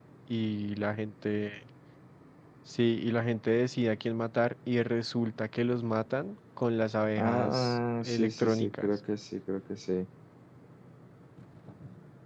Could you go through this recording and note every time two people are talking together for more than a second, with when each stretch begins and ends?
7.2-9.0

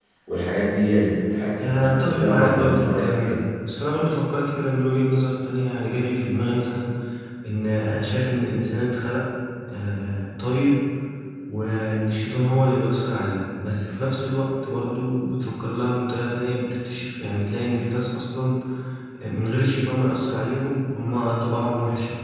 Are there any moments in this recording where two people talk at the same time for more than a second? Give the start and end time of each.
1.6-3.4

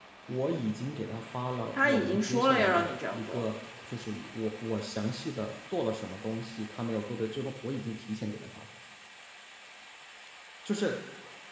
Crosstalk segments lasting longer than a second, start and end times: 1.8-3.4

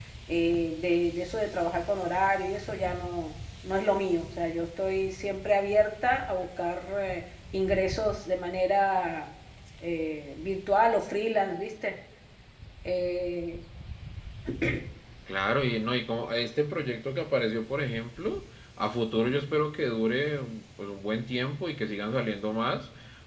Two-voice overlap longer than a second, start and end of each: none

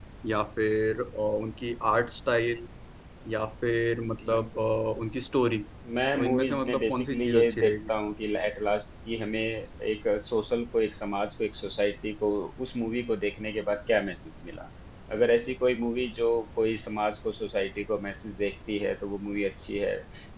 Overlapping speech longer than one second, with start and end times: 6.1-7.9

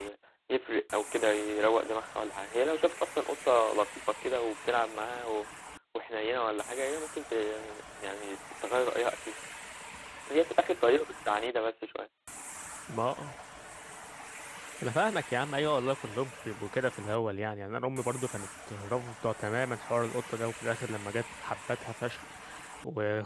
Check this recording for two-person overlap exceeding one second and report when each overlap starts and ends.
none

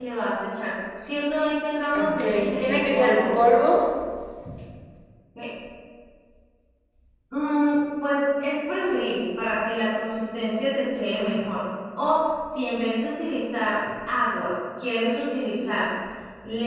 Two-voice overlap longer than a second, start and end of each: 1.9-3.3

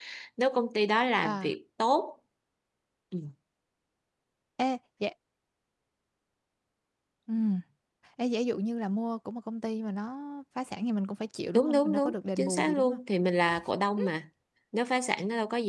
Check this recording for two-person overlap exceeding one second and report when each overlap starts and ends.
11.5-13.0

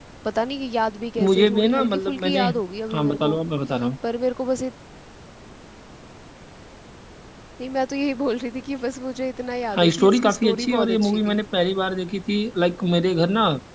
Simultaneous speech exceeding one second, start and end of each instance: 1.2-2.4, 9.7-11.4

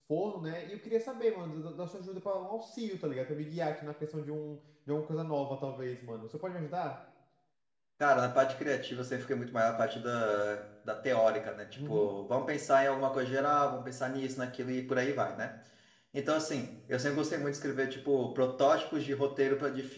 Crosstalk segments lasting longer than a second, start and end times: none

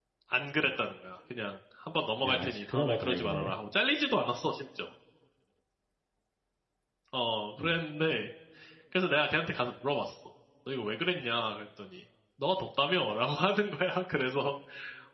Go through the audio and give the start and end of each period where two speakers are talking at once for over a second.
2.2-3.5

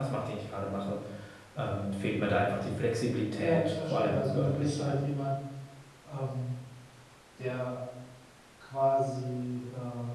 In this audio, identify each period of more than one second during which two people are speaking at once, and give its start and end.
3.4-5.0

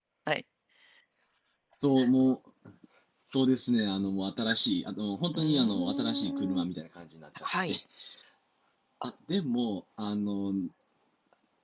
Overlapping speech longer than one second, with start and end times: 5.3-6.6

